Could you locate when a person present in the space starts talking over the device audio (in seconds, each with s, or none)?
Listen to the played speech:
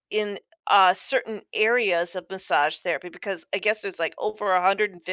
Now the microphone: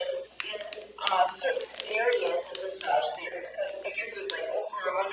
none